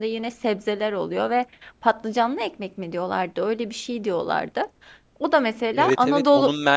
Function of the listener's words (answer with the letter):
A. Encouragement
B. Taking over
B